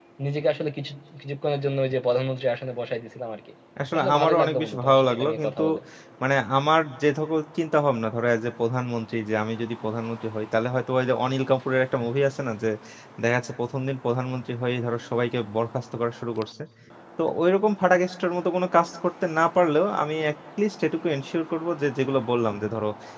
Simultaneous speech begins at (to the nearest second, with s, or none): 4 s